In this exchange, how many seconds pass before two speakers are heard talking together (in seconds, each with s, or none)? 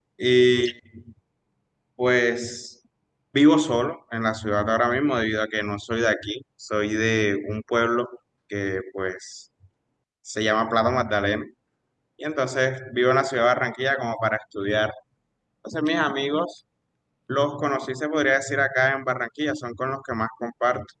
none